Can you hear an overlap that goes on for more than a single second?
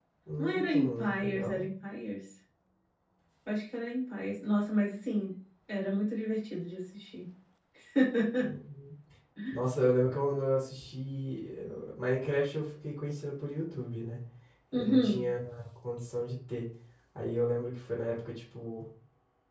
Yes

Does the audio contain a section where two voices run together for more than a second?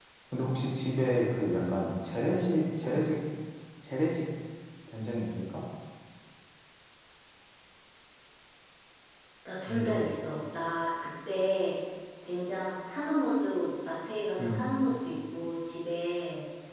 No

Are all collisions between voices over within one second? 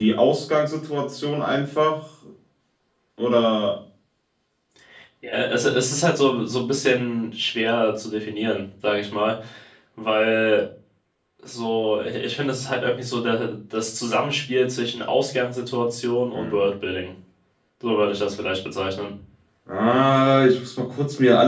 Yes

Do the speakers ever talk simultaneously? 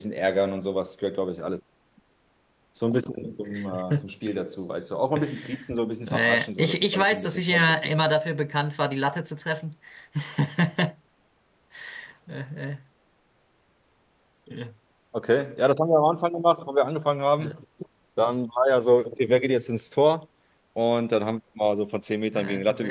Yes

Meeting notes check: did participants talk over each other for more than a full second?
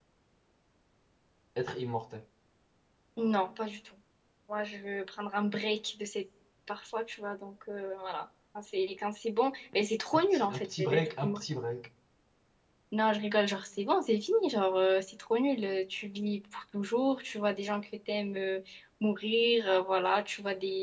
Yes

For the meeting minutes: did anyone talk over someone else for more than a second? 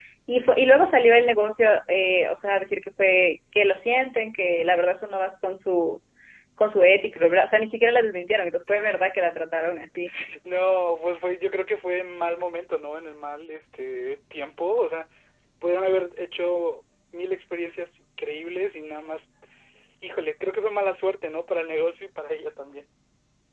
No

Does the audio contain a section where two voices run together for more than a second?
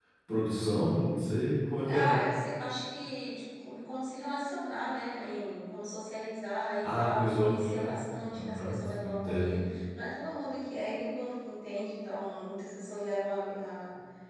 Yes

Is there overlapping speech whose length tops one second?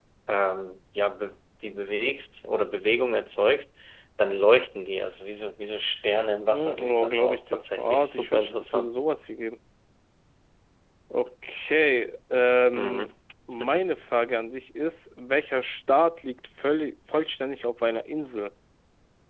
Yes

